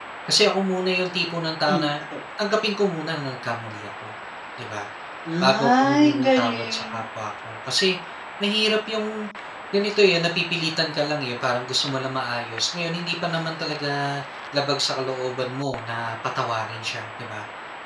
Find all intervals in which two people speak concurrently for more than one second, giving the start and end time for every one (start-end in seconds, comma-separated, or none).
5.4-7.0